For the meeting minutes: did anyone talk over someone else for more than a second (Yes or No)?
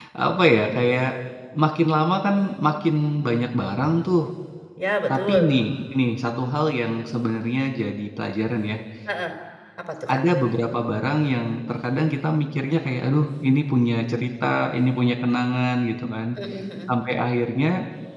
No